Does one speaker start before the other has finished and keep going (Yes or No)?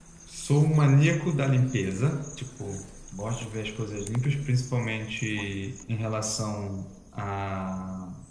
No